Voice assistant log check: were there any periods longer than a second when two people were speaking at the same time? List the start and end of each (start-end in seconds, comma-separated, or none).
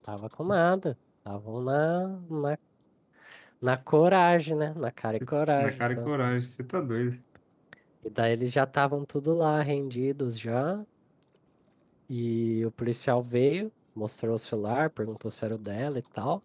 none